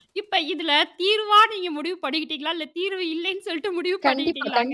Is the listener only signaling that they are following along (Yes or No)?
No